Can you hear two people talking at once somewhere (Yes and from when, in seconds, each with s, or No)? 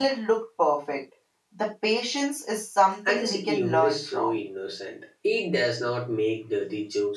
Yes, from 3.0 s